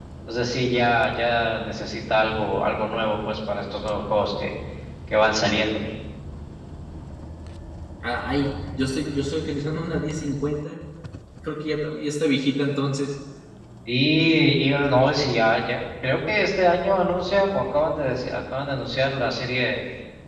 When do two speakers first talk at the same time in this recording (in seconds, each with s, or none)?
none